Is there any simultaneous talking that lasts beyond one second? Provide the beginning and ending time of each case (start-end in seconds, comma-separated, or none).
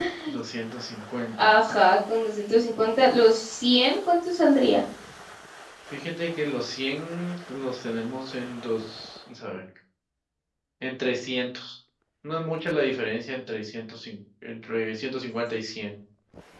none